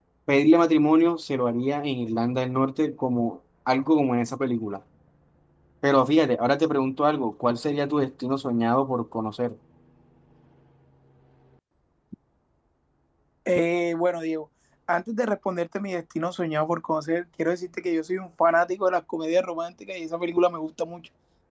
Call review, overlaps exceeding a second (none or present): none